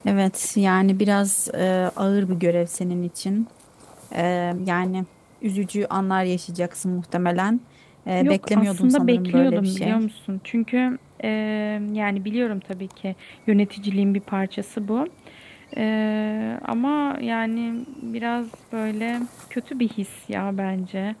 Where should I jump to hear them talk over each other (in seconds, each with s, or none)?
8.2 s